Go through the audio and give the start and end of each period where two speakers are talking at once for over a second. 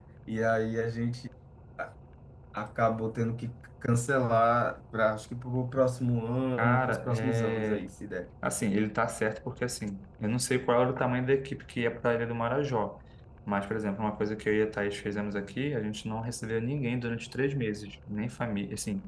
6.6-7.9

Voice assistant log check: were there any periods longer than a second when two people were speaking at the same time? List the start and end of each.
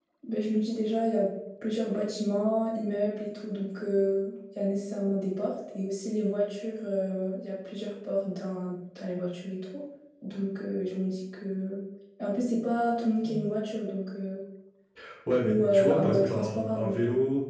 15.4-17.0

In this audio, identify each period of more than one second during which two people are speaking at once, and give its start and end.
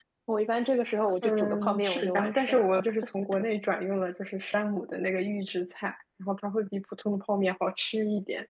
1.2-2.6

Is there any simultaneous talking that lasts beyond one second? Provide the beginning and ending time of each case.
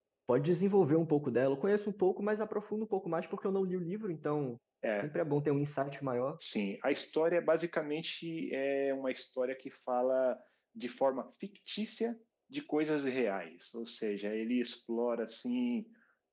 none

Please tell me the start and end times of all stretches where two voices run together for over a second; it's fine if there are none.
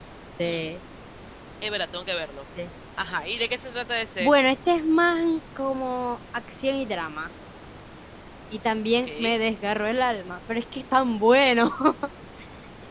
none

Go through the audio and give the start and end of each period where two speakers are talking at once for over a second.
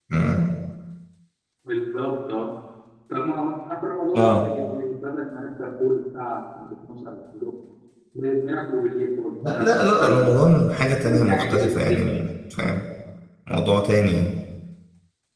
9.5-12.2

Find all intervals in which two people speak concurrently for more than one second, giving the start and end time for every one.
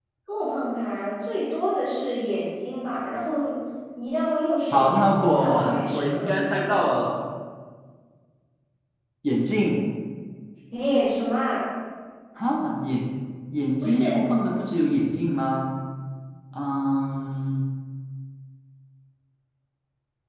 4.7-6.7

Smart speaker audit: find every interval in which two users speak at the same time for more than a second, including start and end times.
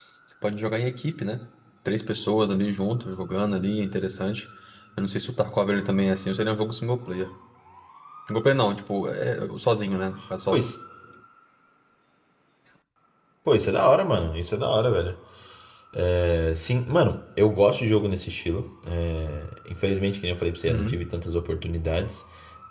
none

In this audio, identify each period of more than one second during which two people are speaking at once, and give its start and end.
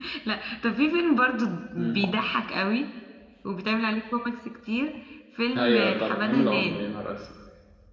5.5-6.8

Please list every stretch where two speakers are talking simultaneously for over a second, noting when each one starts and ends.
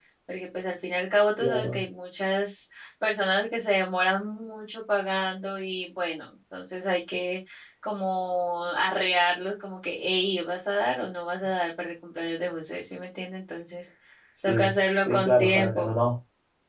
14.4-16.0

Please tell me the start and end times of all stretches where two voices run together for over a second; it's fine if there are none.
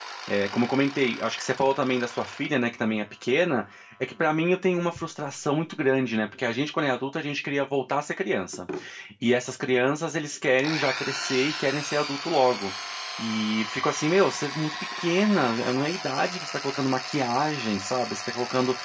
none

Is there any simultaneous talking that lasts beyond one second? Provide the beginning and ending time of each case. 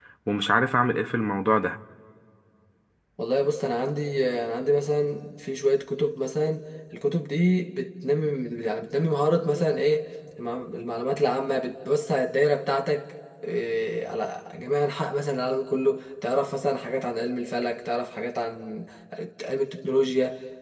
none

